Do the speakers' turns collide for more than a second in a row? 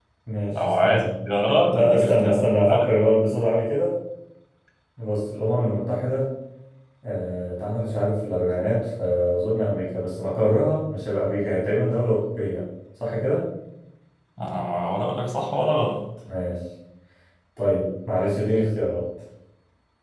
Yes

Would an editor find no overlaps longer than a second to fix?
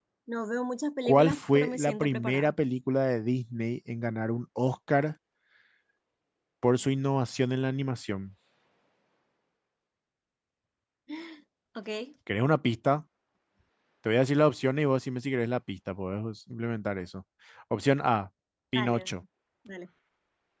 No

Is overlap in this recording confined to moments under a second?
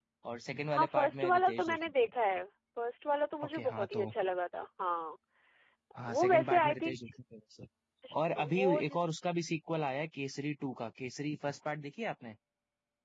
No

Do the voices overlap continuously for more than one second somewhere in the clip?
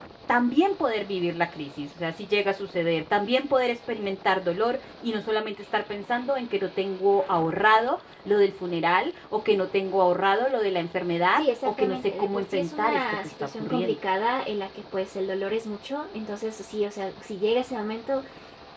Yes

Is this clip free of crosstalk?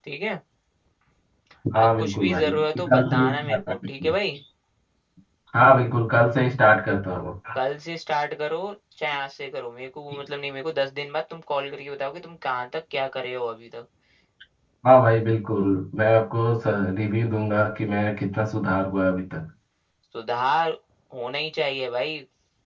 No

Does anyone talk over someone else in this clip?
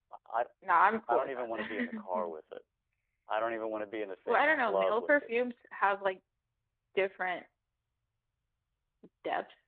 Yes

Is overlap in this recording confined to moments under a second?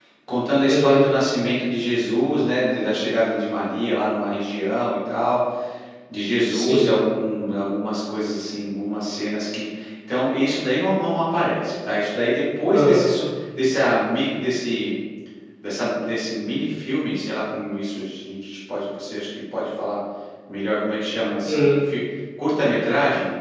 Yes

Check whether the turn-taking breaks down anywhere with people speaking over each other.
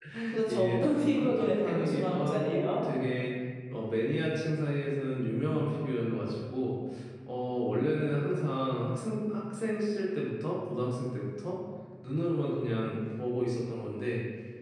Yes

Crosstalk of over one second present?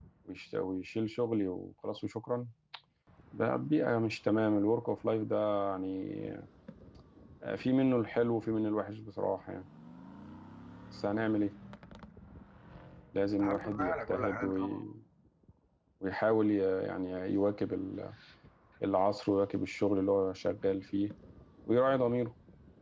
Yes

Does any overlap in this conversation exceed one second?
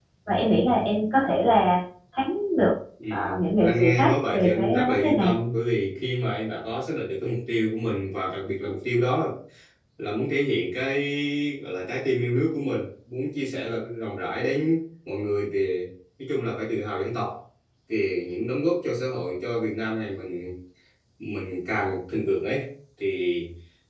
Yes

